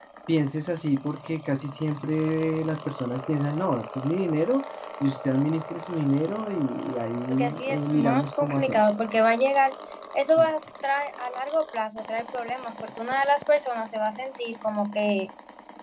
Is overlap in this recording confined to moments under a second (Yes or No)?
No